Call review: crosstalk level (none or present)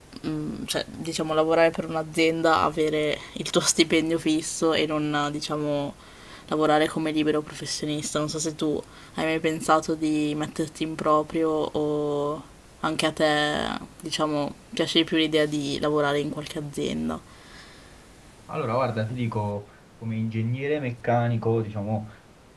none